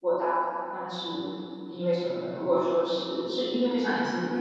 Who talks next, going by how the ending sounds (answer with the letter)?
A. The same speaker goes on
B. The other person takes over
B